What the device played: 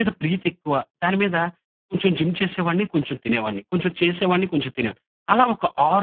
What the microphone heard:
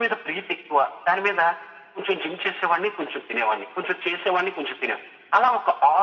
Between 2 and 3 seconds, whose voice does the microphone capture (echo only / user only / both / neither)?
echo only